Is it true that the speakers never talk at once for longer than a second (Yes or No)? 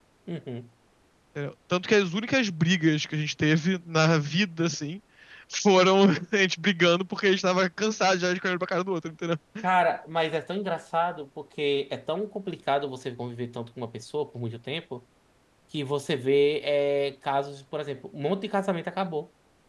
Yes